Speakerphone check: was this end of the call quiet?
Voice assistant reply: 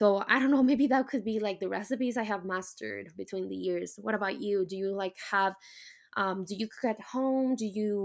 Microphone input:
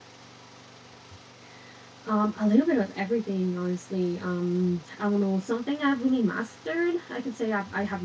No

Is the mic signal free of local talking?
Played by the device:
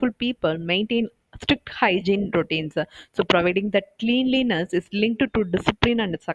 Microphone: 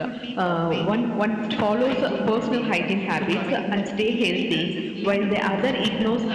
No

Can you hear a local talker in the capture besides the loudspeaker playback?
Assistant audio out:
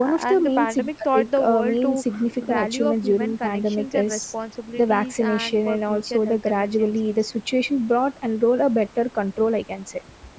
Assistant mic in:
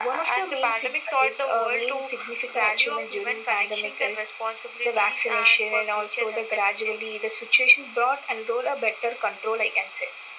No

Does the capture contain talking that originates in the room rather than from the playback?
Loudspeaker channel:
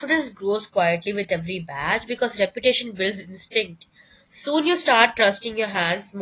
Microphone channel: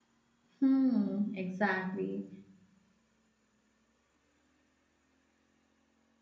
Yes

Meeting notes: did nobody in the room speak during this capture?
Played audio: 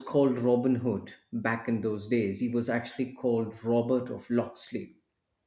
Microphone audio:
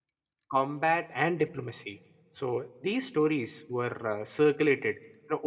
No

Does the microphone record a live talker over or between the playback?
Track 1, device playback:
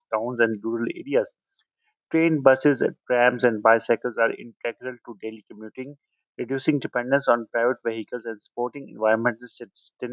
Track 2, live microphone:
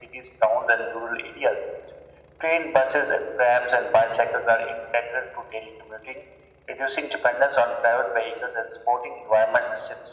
No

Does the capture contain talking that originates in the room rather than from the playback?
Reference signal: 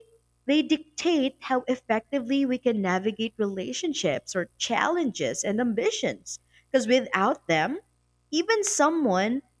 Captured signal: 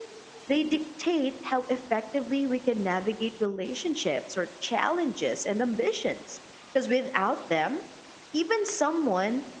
No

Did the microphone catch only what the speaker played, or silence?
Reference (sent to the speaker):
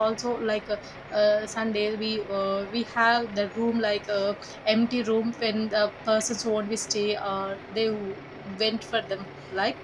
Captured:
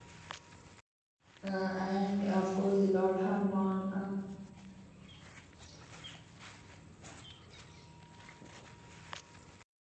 No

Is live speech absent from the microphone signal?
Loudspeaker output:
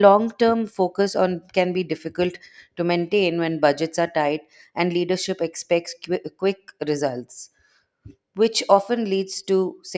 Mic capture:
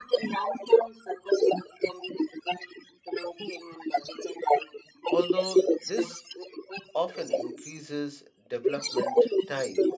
No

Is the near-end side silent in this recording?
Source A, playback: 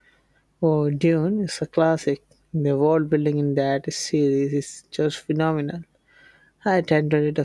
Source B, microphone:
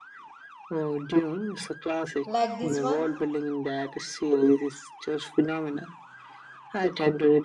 No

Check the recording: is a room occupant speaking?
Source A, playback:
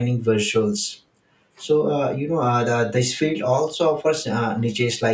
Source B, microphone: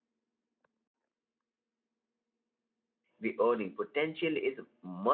Yes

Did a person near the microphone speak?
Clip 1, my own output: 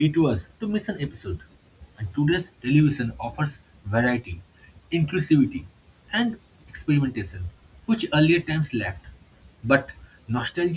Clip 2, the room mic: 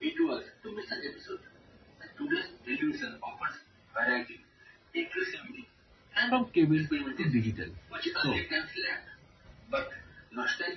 Yes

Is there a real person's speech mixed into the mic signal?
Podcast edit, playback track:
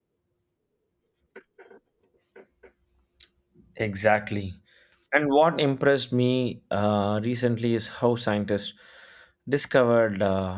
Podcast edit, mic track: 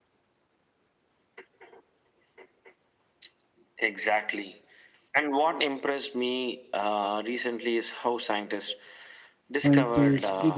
Yes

